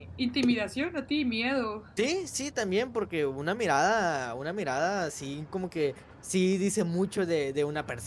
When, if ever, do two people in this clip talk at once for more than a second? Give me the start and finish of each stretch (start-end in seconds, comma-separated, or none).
none